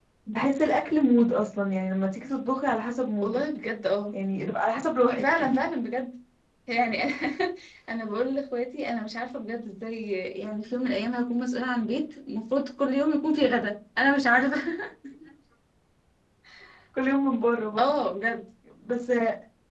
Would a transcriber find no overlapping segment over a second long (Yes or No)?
Yes